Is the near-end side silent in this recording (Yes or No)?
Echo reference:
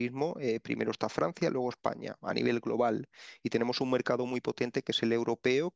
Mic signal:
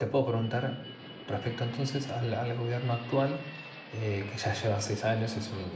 No